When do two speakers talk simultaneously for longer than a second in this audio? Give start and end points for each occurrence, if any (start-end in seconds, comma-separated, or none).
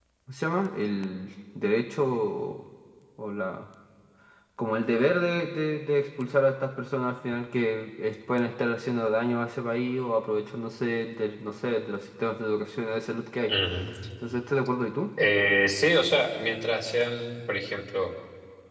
none